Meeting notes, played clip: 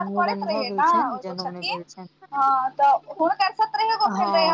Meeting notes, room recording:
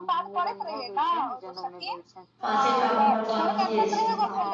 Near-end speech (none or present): present